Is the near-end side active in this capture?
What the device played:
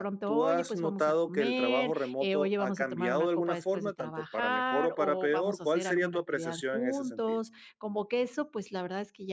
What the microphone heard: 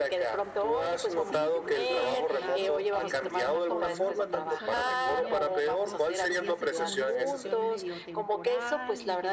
Yes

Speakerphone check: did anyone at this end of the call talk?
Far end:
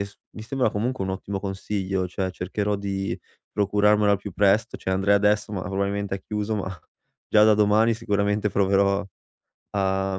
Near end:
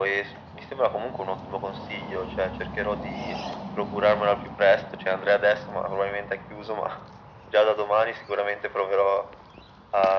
No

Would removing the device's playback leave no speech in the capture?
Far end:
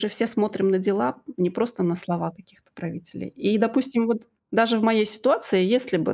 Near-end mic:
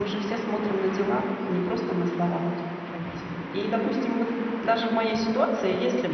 Yes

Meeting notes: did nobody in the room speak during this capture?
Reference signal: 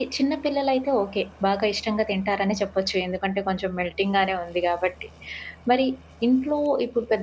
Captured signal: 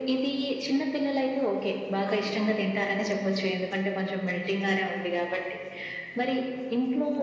No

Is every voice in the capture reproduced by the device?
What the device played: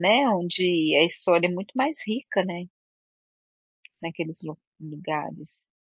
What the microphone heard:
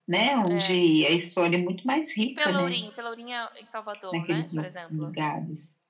No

